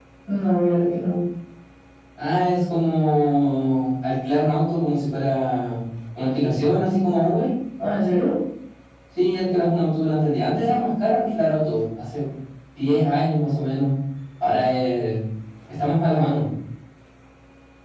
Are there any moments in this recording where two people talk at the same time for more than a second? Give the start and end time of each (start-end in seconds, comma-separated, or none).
none